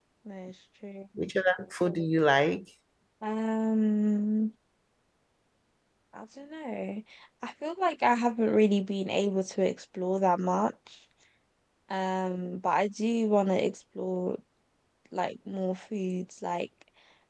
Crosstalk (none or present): none